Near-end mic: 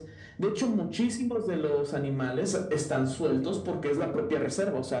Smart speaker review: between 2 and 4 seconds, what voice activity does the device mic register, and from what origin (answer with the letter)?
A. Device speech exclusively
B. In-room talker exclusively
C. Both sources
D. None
A